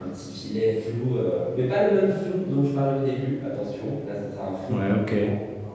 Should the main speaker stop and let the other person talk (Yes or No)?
No